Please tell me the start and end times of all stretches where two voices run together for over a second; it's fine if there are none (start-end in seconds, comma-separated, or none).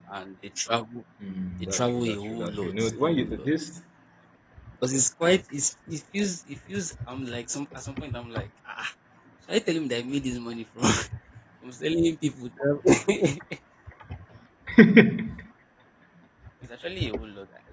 1.6-3.5